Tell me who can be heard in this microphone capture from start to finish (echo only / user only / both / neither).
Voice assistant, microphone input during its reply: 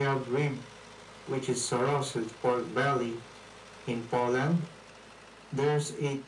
echo only